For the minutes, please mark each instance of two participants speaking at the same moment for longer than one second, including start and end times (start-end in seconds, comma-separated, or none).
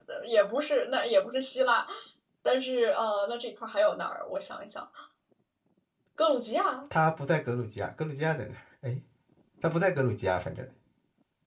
none